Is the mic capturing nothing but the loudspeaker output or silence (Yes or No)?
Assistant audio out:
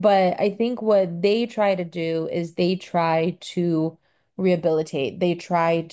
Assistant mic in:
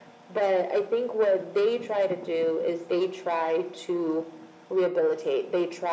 Yes